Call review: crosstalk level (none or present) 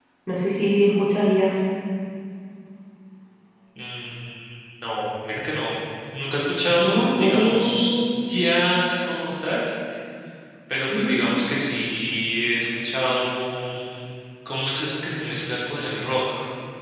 present